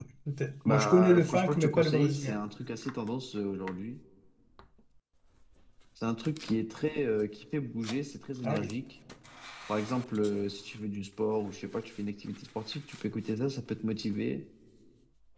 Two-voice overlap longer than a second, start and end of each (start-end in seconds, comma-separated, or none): 0.7-2.4